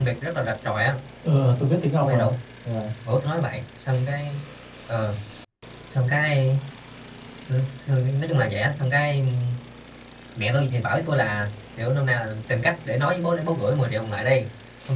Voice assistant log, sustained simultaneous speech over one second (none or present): none